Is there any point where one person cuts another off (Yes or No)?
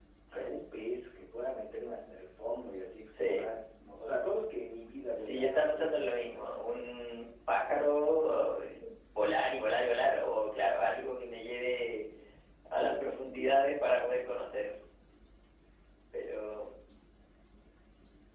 Yes